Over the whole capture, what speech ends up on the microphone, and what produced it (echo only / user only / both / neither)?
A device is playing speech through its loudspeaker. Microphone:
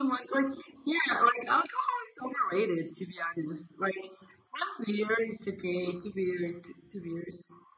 echo only